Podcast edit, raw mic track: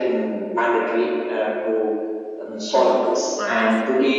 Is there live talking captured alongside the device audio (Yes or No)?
Yes